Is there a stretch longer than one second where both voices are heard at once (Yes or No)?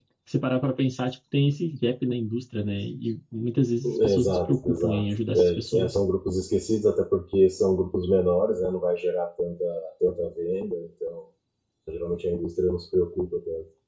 Yes